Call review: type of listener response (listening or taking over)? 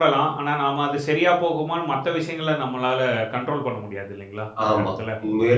taking over